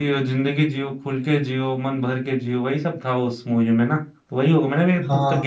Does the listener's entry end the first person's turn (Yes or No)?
Yes